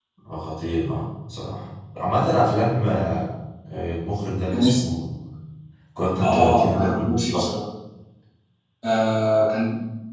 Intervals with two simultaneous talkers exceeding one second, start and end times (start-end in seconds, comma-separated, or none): 6.2-7.5